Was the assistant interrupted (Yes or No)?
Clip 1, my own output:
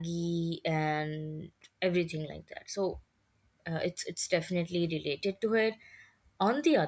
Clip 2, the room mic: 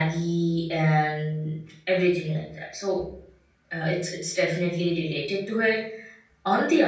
No